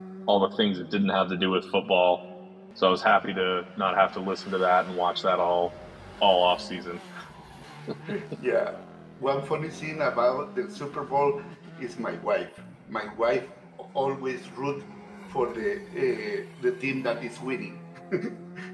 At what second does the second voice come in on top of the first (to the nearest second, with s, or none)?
none